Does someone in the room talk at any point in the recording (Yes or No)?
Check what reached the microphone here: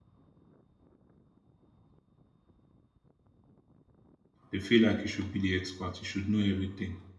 Yes